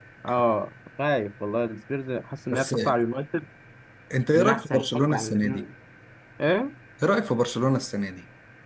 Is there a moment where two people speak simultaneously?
Yes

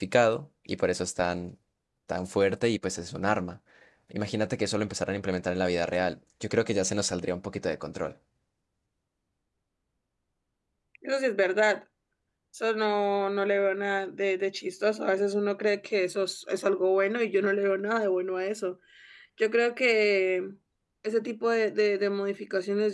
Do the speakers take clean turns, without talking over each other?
Yes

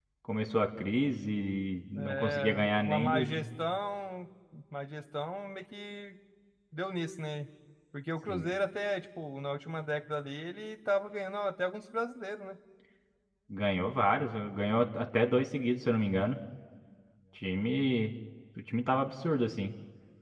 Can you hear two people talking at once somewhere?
Yes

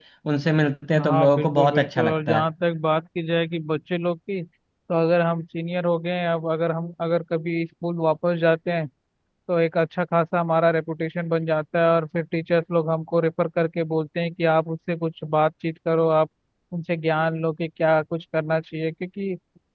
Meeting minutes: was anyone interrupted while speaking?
Yes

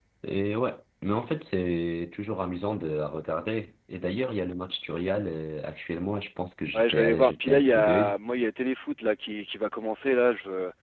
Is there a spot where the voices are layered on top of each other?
Yes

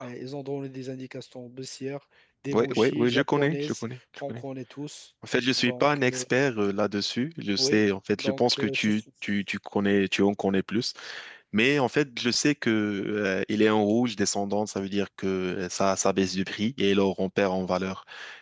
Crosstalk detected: Yes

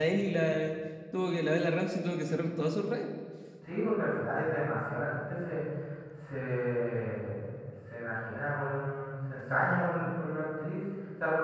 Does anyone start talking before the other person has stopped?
No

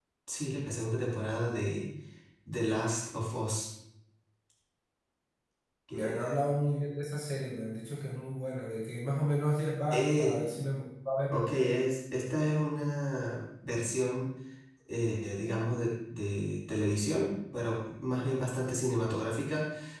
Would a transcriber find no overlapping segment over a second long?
Yes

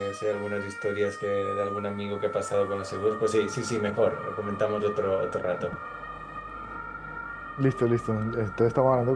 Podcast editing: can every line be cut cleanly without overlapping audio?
Yes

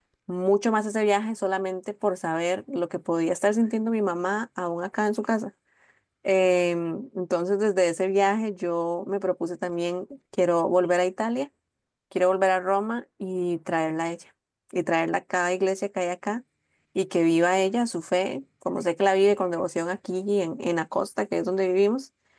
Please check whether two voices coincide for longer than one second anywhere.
No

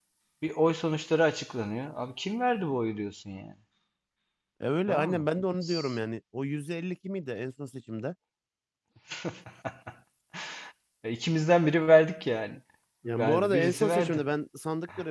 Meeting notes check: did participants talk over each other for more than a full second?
Yes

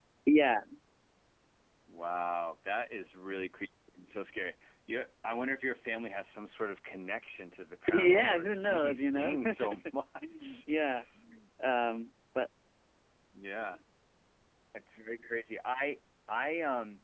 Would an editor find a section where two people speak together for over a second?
Yes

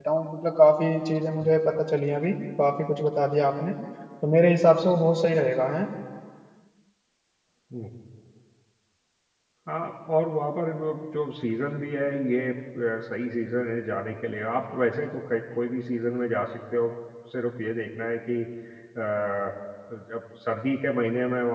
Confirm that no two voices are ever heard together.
Yes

